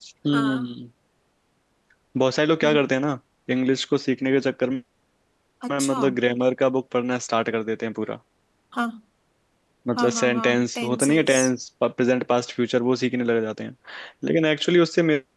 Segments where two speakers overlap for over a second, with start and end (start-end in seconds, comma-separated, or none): 10.0-11.4